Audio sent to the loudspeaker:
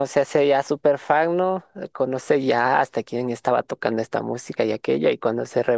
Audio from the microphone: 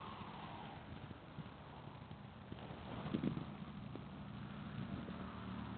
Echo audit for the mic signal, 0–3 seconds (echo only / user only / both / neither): neither